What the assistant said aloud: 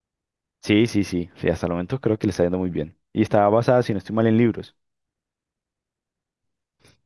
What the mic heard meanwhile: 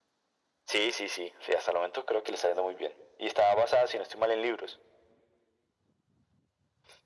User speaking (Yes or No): No